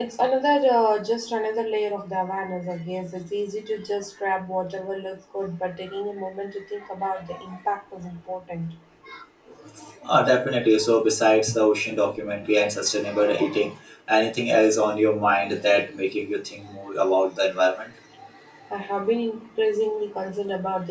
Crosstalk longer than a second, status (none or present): none